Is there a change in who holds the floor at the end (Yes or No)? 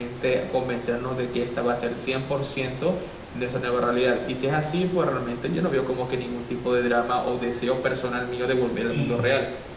Yes